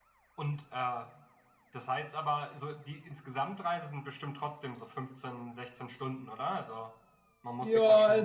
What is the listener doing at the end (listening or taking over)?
taking over